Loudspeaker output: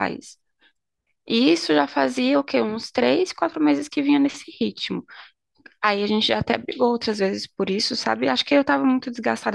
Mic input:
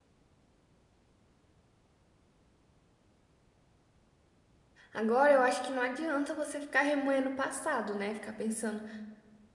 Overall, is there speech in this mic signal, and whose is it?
user only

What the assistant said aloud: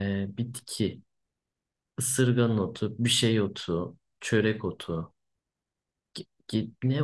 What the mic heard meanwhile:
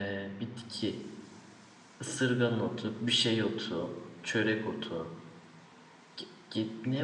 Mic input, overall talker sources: echo only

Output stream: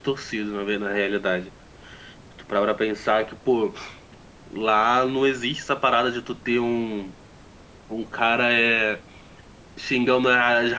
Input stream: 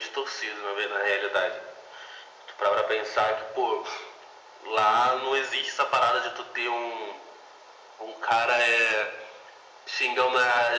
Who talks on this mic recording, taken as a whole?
echo only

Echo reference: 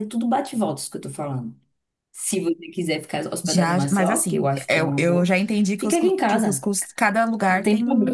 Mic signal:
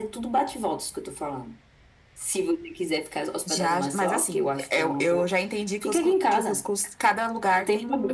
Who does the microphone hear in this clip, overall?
echo only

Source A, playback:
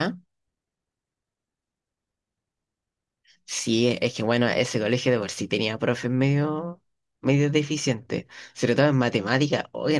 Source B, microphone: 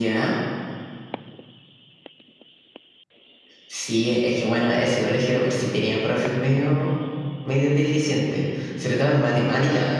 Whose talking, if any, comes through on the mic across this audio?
both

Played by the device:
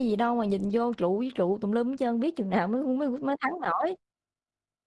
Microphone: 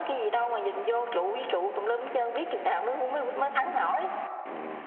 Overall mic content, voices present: echo only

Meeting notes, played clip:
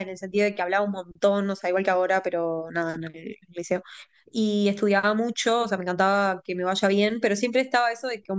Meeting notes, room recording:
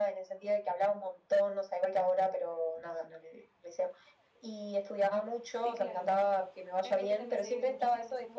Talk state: both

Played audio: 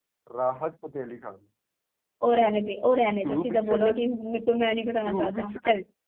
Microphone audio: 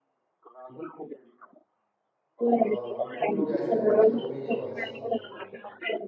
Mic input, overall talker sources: both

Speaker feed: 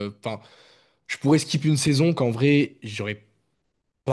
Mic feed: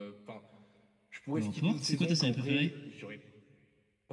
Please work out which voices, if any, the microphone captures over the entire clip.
both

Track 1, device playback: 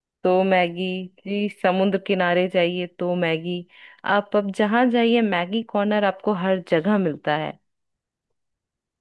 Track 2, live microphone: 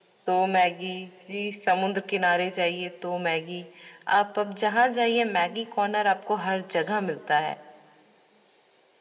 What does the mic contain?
echo only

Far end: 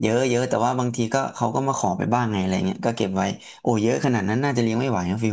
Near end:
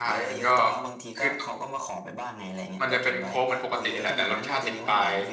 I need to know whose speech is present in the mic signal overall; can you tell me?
both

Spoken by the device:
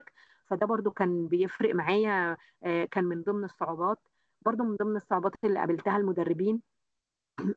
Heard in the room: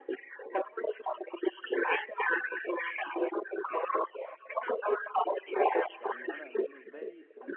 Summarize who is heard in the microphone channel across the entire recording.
both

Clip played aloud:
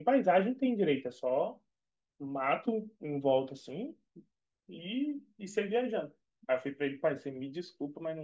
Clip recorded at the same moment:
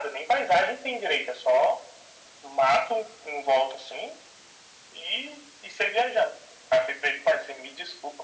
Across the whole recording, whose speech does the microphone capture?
echo only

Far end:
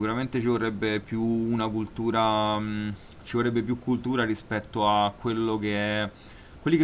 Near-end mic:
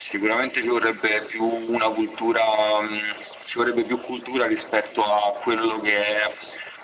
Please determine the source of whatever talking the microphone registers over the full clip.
echo only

